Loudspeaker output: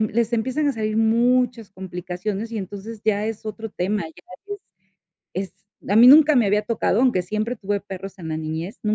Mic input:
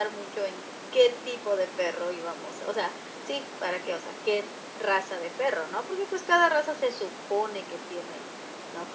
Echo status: none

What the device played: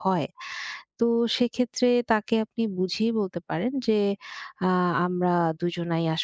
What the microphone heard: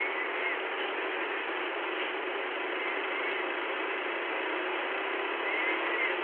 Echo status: none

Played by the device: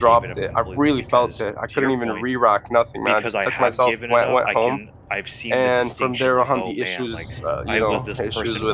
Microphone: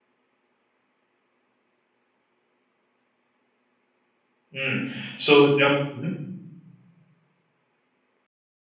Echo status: none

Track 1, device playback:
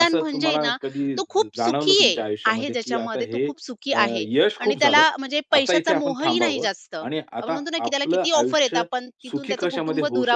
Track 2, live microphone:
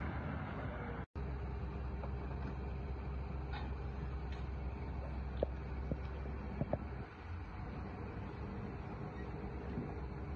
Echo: none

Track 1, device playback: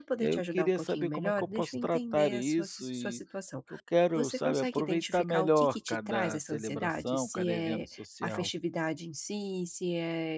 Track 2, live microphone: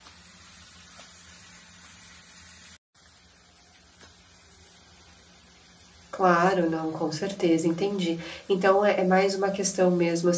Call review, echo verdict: none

